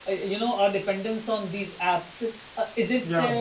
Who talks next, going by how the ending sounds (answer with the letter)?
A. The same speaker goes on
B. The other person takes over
A